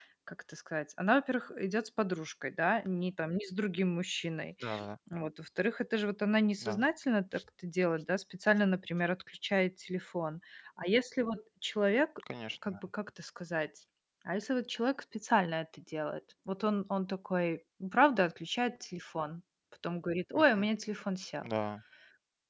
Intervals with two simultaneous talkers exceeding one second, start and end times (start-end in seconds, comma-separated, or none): none